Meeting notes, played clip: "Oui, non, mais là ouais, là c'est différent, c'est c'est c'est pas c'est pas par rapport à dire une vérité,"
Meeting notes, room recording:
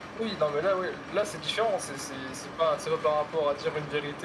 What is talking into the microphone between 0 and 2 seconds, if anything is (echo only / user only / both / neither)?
echo only